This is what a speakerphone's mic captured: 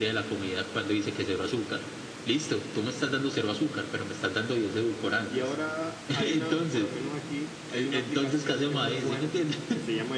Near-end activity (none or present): present